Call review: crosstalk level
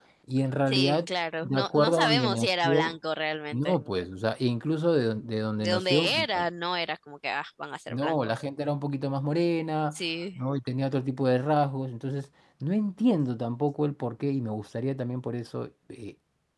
present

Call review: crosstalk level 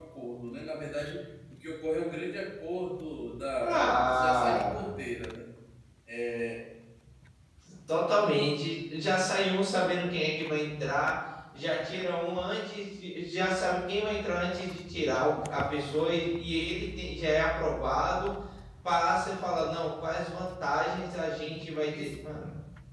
present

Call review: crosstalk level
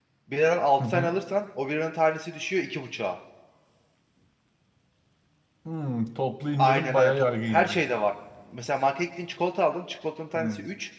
present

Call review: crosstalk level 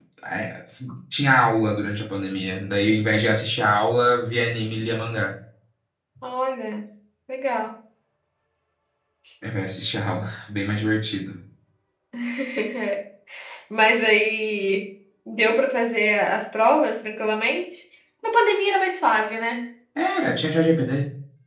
none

